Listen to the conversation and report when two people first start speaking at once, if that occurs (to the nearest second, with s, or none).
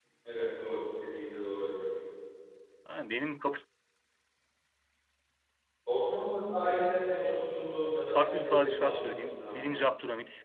8 s